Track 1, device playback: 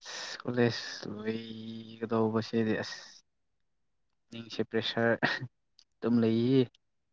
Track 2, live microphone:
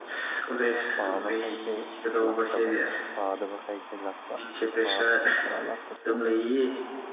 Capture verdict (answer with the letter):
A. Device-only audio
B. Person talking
B